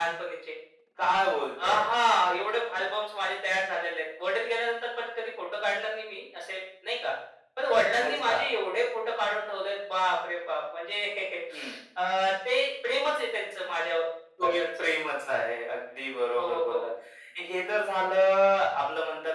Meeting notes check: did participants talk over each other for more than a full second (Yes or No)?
No